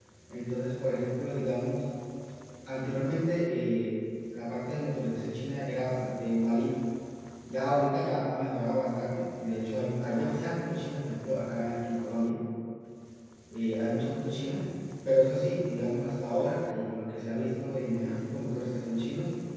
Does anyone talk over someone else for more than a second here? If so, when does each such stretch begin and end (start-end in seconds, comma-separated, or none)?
none